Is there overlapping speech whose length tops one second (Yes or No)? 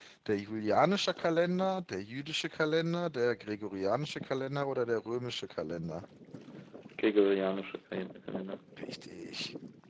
No